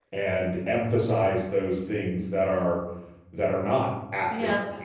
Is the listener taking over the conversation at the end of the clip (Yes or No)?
Yes